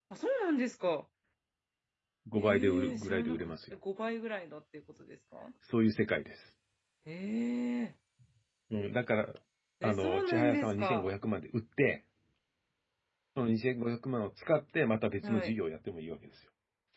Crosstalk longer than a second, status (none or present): present